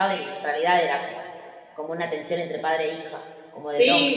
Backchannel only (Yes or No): No